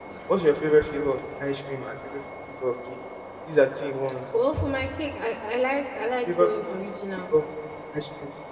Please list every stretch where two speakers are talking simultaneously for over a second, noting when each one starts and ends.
none

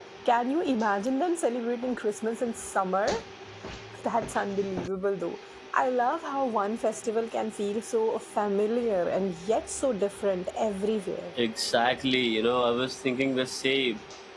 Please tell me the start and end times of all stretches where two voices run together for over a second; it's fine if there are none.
none

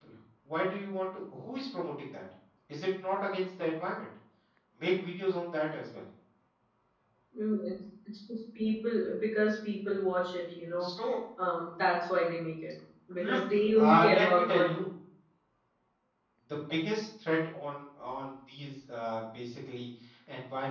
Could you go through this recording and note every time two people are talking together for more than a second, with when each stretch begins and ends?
13.1-14.8

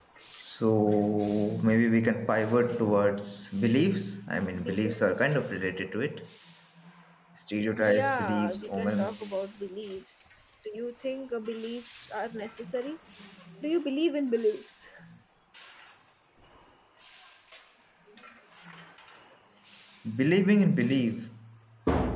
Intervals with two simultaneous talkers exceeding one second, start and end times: 8.0-9.4

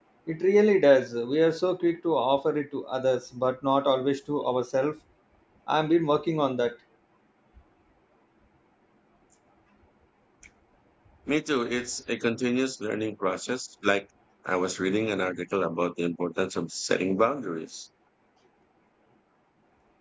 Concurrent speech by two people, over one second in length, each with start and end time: none

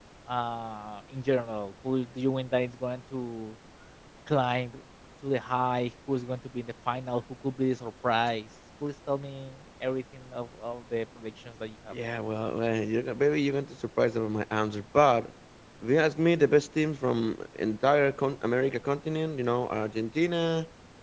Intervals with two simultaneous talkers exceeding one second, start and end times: none

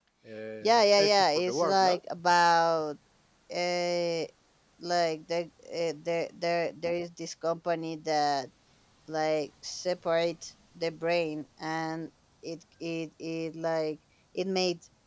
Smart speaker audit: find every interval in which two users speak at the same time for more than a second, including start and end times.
0.6-2.0

